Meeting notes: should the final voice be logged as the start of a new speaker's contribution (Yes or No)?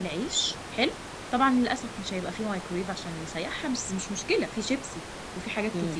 No